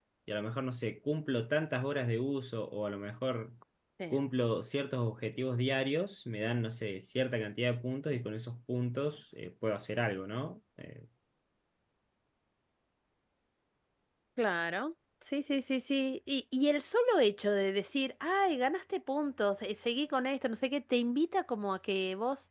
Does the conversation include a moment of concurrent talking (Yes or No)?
No